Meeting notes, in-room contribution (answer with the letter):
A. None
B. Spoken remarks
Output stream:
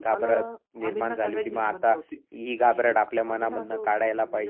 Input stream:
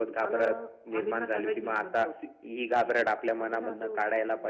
A